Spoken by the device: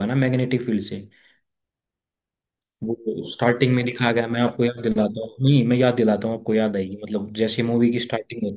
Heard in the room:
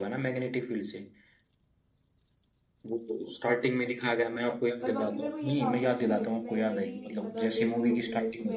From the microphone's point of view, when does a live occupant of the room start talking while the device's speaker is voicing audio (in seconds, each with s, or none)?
4.8 s